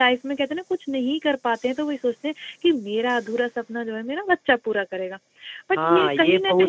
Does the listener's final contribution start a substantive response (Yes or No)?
Yes